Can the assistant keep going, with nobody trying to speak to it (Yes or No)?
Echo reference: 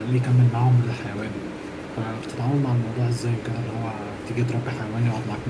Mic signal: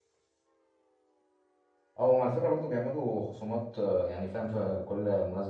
No